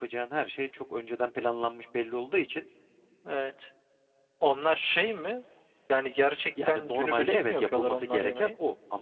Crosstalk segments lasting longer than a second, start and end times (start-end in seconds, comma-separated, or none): 6.7-8.5